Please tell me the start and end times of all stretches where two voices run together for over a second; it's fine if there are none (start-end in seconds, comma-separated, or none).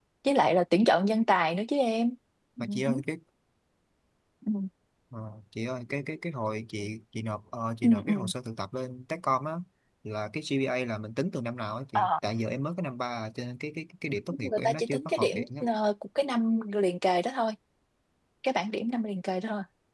14.3-15.7